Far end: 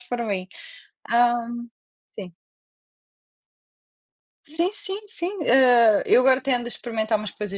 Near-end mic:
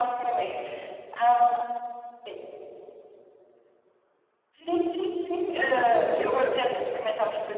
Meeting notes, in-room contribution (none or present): none